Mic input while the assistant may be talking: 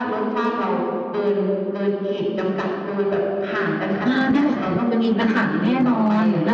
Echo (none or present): present